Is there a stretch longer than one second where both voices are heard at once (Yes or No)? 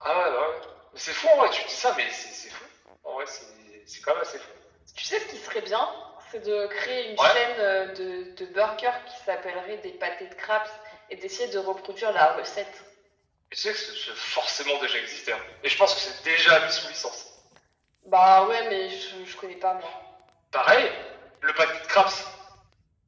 No